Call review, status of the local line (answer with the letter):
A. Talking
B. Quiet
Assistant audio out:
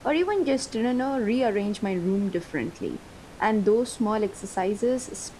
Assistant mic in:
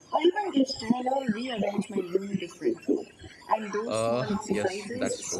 A